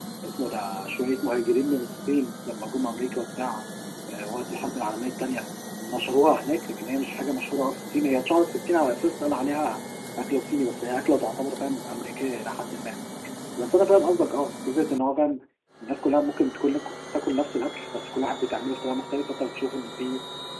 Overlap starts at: none

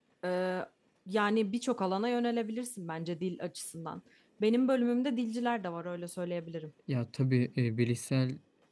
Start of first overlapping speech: none

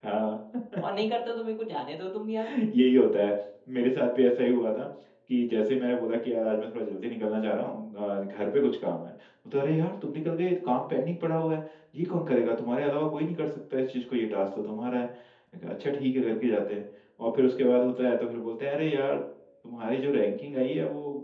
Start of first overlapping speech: none

